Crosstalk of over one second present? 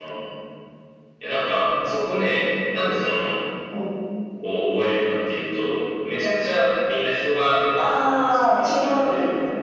Yes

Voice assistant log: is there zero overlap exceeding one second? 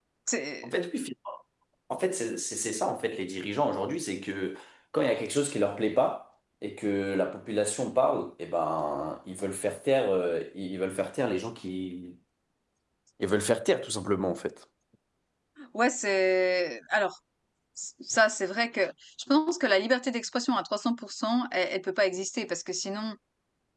Yes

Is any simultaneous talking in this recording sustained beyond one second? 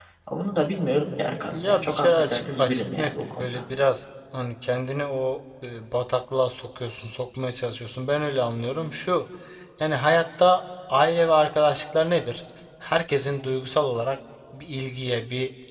Yes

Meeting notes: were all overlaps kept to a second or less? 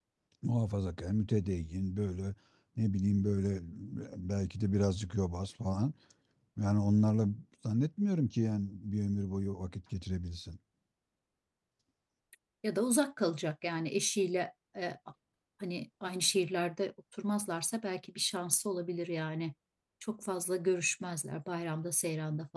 Yes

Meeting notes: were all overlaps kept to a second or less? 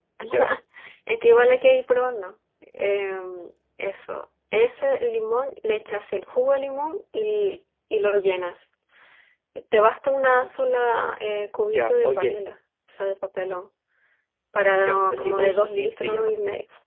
No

